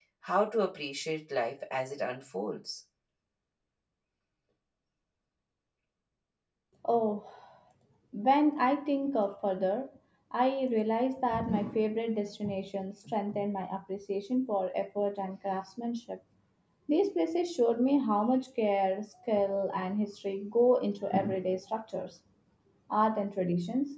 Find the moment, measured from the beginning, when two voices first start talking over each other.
none

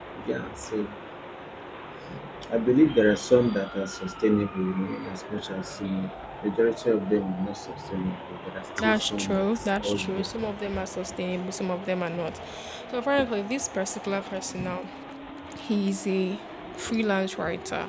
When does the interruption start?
8.8 s

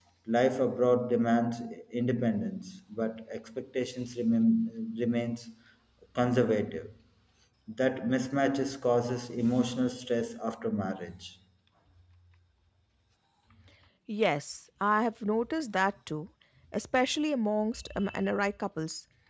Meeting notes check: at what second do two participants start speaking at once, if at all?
none

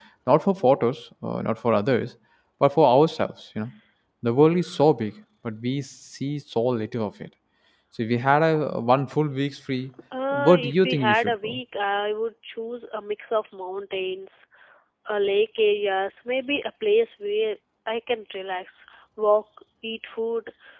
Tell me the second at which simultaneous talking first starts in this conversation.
10.1 s

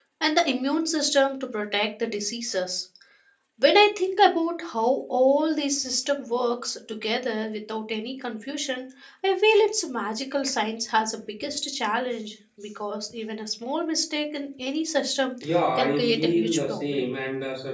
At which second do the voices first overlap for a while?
15.8 s

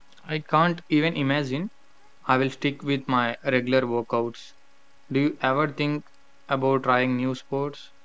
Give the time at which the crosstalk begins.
none

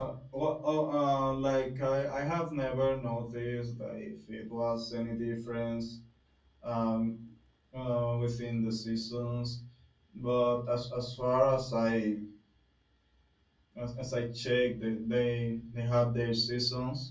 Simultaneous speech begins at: none

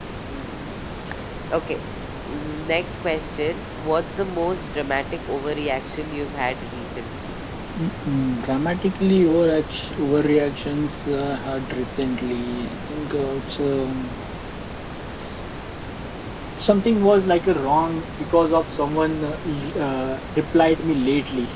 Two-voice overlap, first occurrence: none

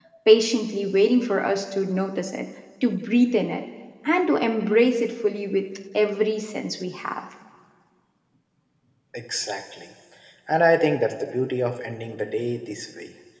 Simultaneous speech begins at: none

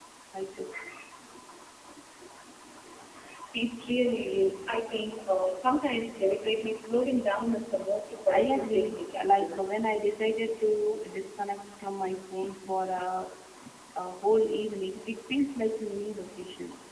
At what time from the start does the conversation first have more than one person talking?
8.3 s

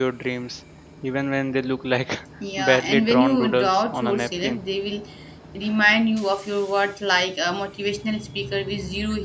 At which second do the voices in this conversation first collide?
2.4 s

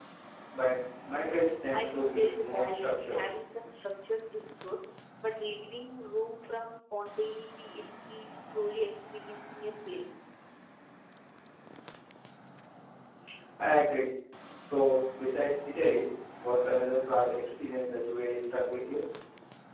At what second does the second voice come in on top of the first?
1.7 s

